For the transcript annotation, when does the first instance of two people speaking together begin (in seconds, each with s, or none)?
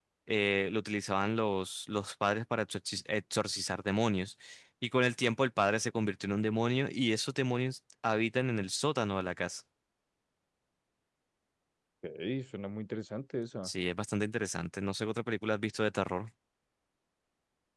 none